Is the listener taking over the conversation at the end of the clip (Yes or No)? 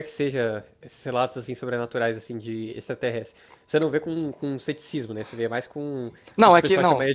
Yes